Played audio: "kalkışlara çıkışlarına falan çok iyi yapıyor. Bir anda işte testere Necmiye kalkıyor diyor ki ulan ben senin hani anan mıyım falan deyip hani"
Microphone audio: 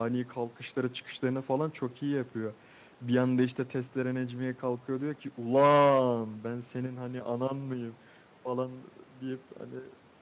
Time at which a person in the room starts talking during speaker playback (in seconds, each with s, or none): none